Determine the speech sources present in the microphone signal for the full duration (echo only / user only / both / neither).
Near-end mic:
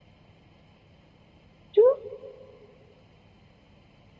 user only